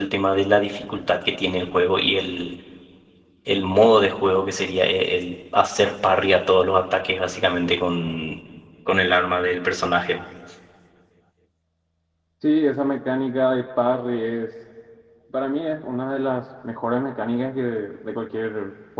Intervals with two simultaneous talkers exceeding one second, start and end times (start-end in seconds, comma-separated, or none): none